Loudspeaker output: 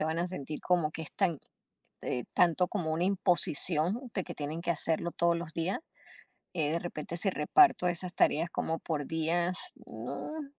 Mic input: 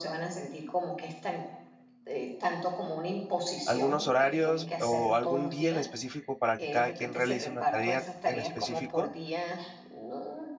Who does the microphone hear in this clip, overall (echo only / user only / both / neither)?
both